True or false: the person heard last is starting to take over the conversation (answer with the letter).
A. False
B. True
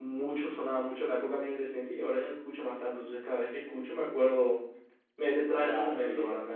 A